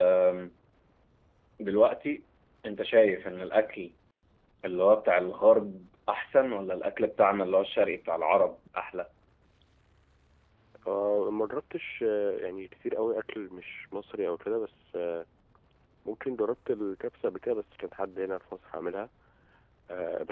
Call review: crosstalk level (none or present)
none